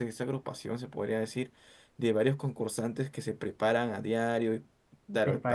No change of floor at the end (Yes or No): Yes